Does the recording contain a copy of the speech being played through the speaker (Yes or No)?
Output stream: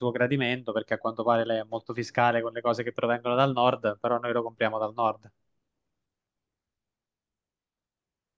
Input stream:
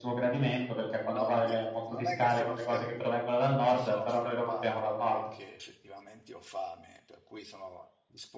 Yes